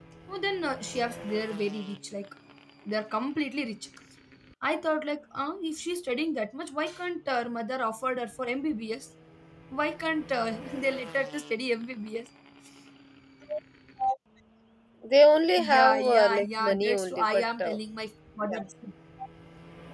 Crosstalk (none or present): present